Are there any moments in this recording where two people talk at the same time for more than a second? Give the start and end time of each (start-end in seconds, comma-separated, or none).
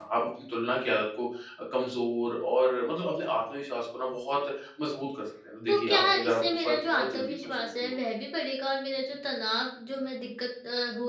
5.7-7.9